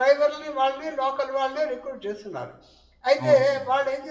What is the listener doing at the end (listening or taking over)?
listening